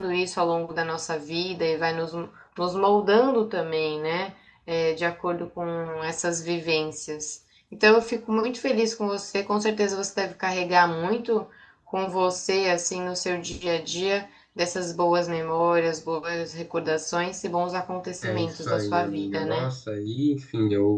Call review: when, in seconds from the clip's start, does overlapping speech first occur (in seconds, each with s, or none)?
18.2 s